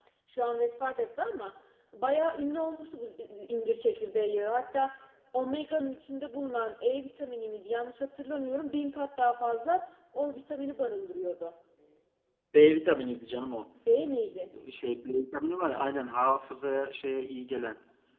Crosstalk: none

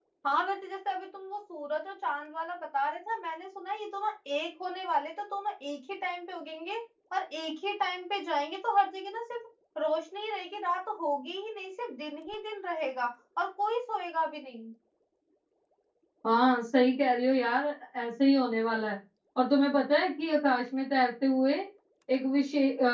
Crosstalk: none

